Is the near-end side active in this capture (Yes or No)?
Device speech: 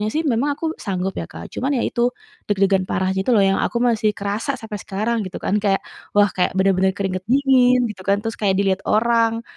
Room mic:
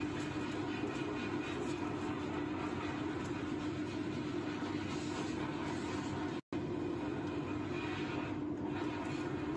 No